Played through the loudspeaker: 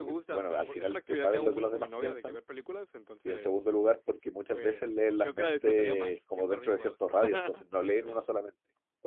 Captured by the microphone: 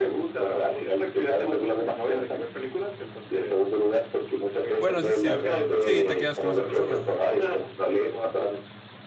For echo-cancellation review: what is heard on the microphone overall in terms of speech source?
both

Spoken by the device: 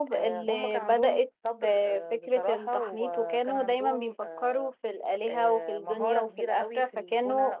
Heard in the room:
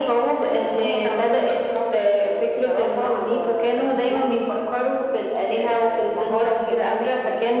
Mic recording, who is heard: echo only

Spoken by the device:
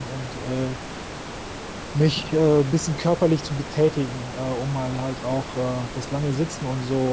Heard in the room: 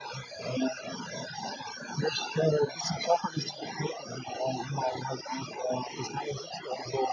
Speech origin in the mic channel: echo only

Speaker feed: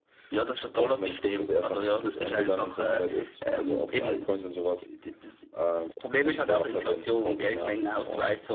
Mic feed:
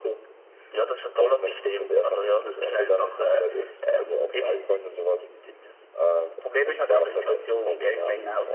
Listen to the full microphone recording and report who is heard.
echo only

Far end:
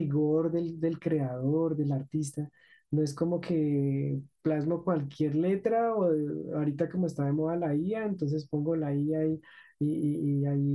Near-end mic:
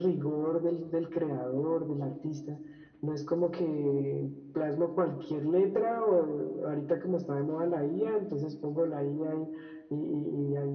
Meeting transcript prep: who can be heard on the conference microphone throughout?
echo only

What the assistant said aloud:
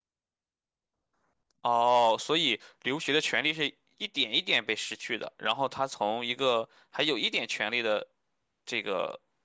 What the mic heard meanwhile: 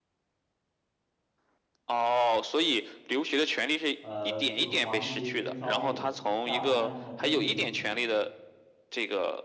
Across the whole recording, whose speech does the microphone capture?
both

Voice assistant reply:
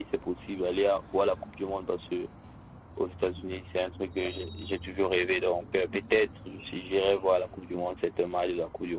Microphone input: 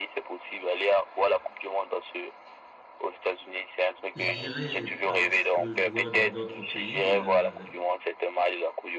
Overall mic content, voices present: both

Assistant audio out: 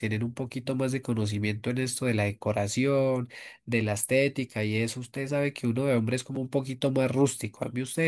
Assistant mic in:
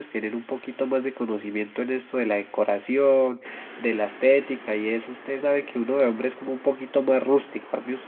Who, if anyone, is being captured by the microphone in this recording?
echo only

